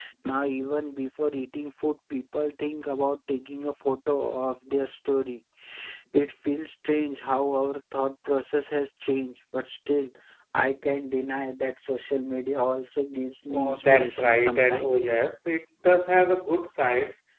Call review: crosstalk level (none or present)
present